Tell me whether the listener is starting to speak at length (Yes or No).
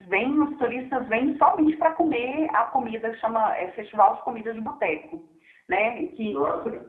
No